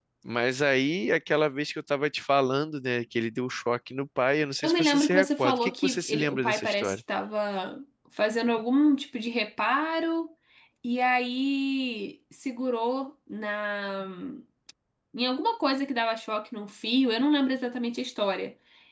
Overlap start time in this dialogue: 4.6 s

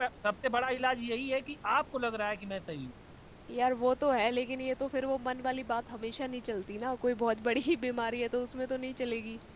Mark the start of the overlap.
none

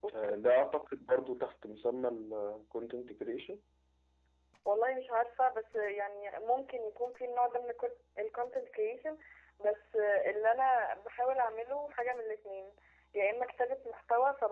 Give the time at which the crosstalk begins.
none

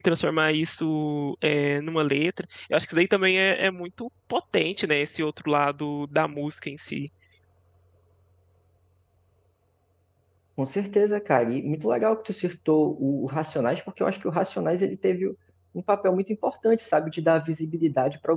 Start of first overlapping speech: none

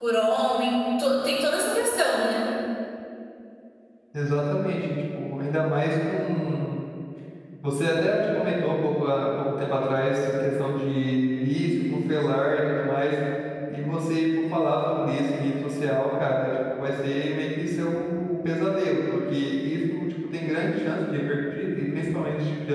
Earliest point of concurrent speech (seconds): none

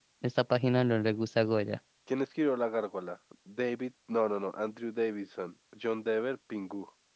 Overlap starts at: none

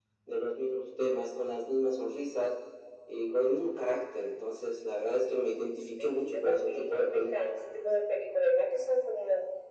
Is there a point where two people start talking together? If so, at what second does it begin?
6.0 s

